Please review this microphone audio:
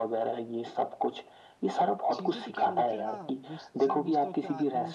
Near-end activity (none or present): present